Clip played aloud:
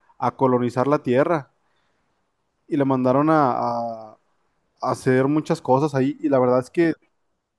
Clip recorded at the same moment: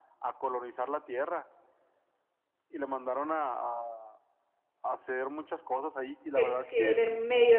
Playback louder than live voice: No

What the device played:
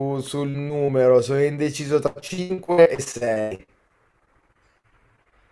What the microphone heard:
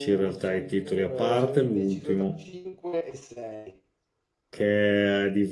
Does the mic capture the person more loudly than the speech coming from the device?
Yes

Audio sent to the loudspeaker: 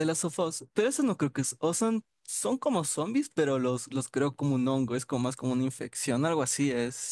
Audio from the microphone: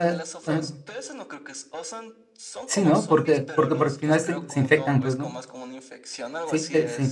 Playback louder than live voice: No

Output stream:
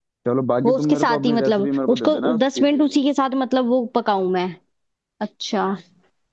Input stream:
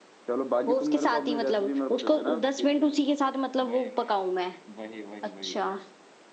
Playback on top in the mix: Yes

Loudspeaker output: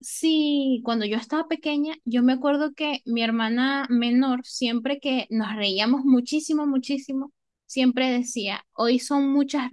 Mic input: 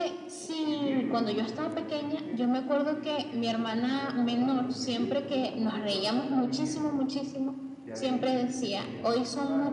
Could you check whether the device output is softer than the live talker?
No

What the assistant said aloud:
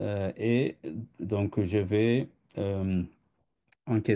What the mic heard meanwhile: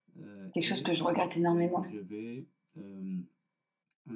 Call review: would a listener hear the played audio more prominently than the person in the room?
No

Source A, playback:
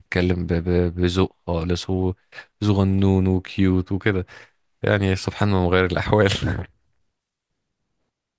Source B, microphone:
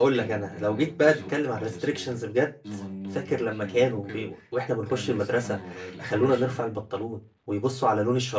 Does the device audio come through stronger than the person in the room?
No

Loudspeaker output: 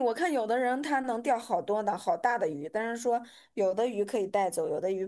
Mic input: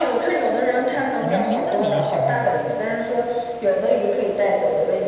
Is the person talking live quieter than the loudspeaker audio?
Yes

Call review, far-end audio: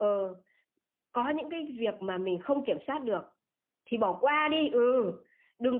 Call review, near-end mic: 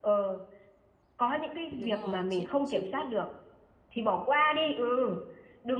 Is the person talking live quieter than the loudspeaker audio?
Yes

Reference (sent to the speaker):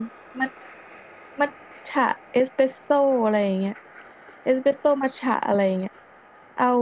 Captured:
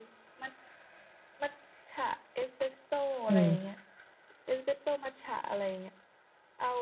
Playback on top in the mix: No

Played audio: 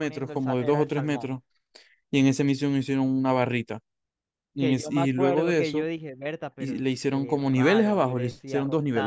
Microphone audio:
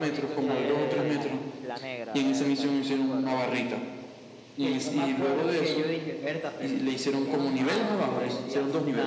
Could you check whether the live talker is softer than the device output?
Yes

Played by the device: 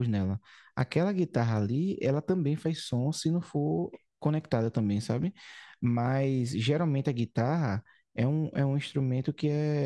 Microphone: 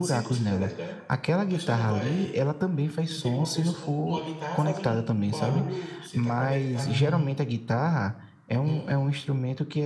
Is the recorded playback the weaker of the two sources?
No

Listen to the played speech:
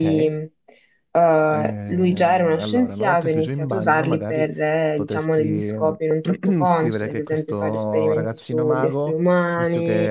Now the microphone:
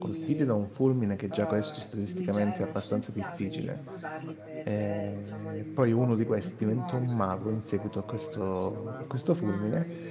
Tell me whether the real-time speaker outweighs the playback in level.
Yes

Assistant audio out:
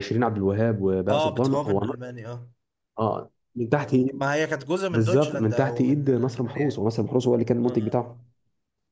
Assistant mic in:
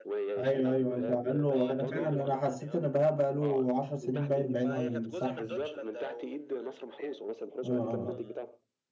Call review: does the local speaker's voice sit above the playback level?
Yes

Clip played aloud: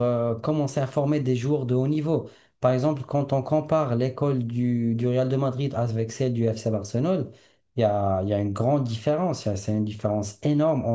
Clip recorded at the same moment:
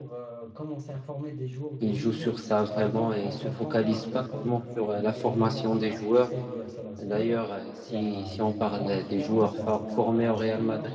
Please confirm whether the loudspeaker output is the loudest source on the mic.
No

